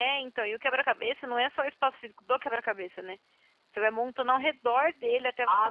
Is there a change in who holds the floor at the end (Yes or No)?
Yes